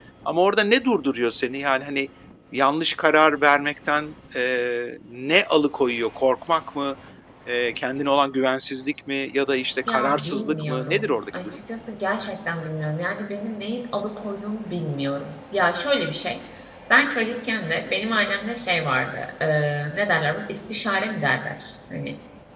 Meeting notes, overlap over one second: present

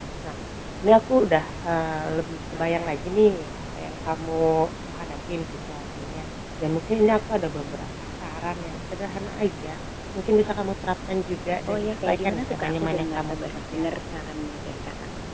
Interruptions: present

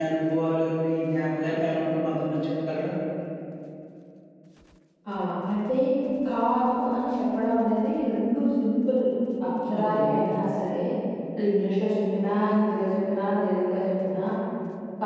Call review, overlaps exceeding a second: none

